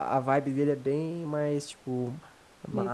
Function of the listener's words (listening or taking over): listening